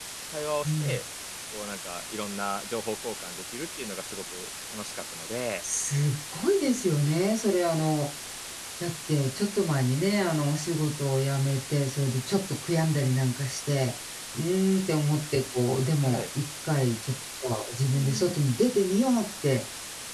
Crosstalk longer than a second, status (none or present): none